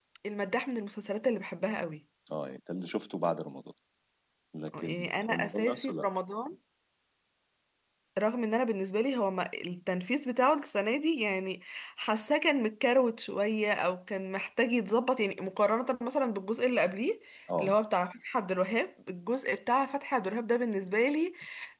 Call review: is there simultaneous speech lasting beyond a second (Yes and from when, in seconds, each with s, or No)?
Yes, from 4.8 s